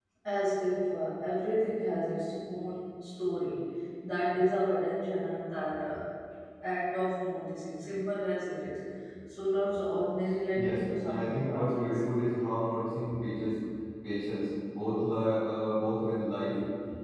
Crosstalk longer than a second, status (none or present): present